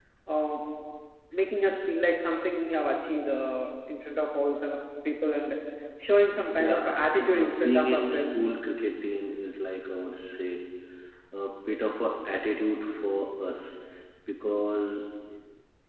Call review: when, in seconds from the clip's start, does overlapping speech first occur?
6.6 s

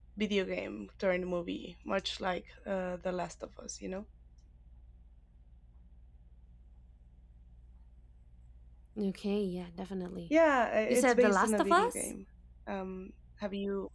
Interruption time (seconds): 10.9 s

